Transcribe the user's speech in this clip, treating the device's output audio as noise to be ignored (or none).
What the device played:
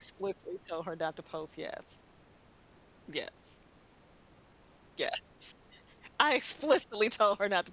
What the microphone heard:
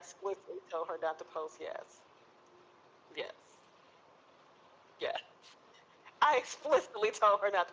none